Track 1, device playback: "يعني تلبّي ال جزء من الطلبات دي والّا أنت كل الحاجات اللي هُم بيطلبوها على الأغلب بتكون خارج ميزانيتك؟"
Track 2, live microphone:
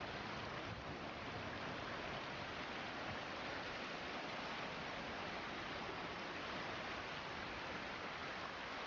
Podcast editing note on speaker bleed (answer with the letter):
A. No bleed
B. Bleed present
A